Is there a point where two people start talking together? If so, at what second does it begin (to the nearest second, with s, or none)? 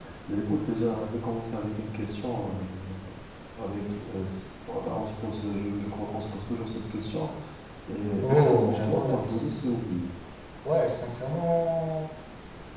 8 s